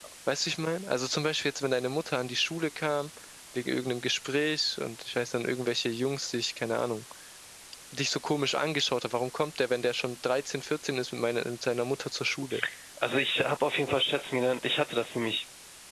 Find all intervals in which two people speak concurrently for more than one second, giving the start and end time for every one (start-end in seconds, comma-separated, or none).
none